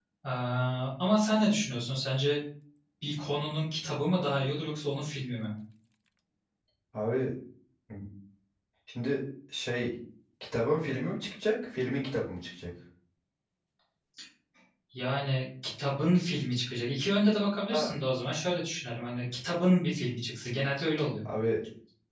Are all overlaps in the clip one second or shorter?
Yes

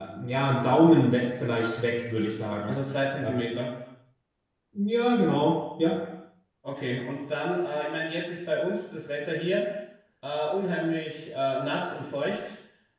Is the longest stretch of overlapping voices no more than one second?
Yes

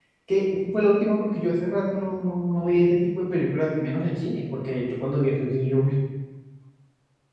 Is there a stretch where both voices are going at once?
No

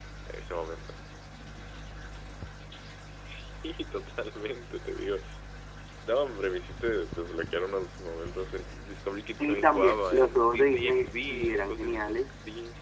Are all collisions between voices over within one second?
No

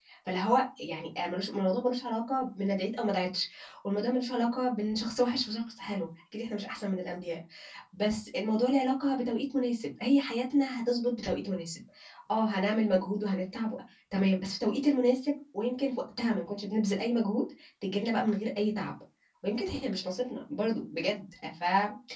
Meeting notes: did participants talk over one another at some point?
No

